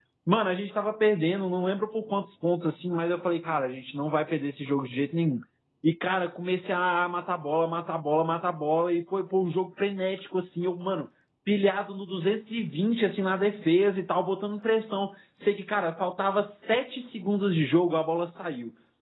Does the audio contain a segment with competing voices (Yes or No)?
No